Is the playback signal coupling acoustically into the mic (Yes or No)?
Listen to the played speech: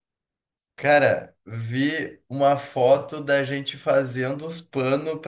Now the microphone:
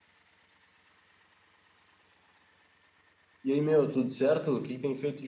No